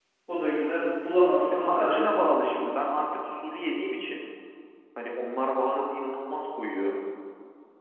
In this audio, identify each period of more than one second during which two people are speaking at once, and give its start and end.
1.5-2.7

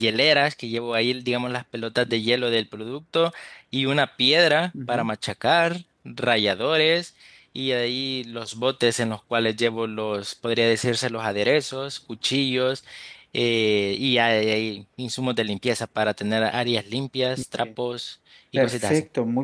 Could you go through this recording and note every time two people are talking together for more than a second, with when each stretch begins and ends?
none

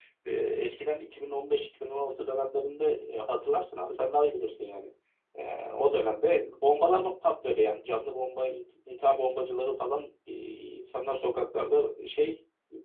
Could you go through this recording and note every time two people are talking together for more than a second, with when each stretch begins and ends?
none

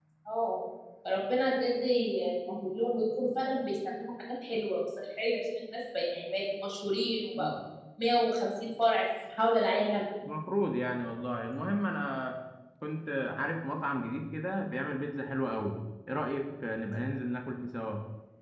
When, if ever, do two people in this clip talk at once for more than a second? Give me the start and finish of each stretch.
none

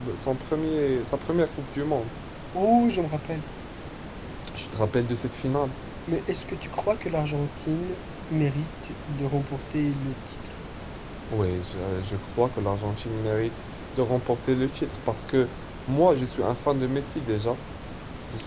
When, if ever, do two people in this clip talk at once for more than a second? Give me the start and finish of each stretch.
none

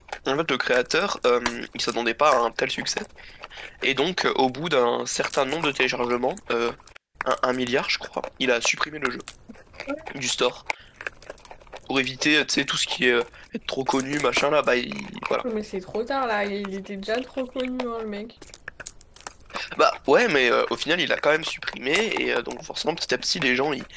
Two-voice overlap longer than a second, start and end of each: none

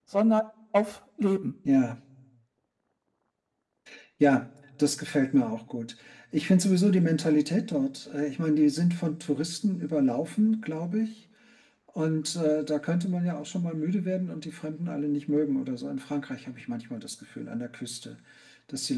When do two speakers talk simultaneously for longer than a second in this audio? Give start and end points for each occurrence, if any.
none

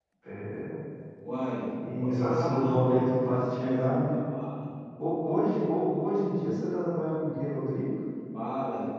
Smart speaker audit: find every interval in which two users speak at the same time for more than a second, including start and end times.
2.0-4.1

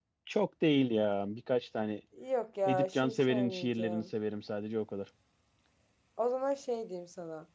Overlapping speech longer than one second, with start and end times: 2.6-4.0

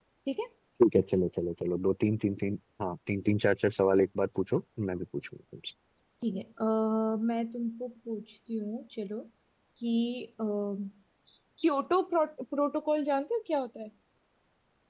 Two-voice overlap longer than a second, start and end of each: none

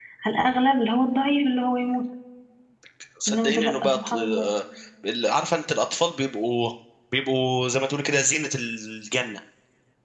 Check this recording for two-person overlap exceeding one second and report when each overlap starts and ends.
3.3-4.5

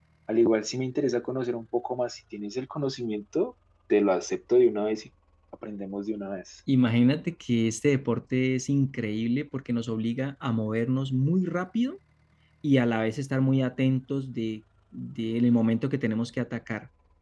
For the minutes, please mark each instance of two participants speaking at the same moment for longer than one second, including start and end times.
none

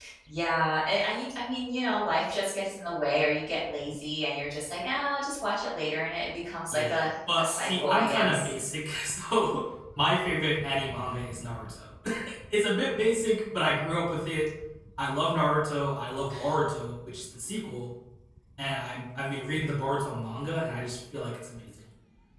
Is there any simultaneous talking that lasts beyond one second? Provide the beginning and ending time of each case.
6.7-8.5

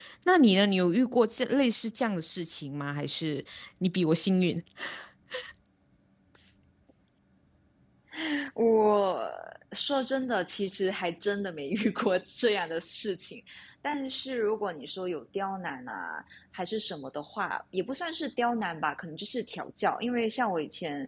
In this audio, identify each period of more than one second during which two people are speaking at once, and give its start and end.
none

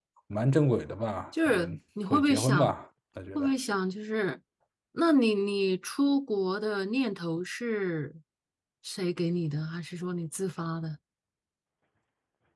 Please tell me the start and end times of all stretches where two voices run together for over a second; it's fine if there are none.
1.4-2.7

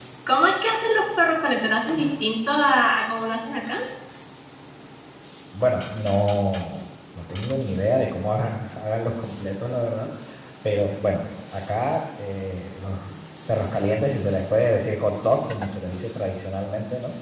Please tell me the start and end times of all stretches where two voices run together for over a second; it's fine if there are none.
none

